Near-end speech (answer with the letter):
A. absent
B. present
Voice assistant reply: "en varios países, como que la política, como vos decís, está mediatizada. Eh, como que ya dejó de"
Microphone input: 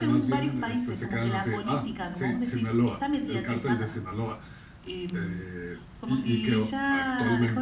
B